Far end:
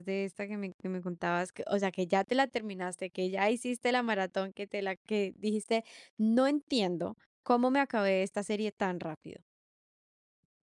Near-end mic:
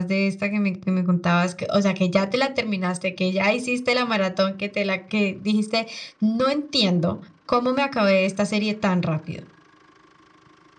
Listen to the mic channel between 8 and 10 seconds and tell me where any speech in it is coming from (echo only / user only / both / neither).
echo only